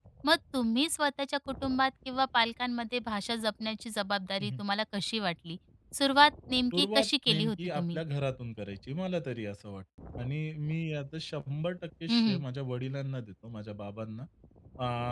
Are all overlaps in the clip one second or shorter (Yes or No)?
No